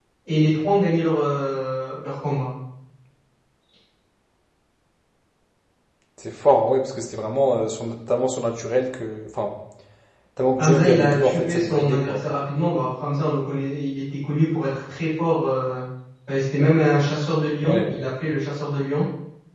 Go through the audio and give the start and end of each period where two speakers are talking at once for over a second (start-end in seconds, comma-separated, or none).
10.6-12.2